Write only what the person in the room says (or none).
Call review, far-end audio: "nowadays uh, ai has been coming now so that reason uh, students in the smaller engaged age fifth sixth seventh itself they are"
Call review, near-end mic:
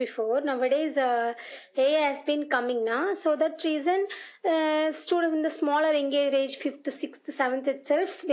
none